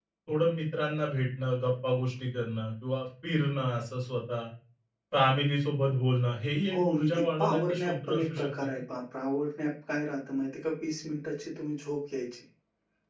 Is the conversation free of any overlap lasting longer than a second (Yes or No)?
No